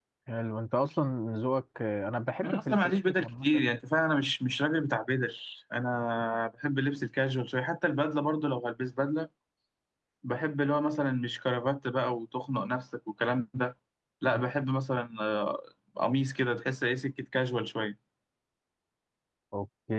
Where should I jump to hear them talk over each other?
2.4 s

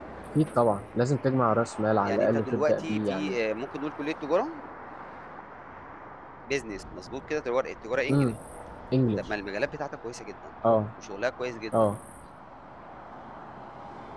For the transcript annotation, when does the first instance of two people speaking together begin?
2.0 s

